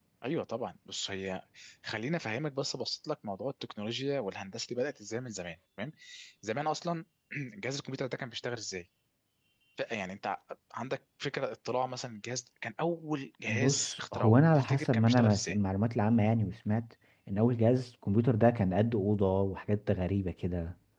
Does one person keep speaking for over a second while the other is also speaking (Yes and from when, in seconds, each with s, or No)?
Yes, from 13.5 s